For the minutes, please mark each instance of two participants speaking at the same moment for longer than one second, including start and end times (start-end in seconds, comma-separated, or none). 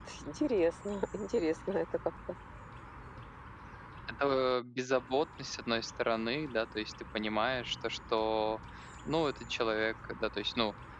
none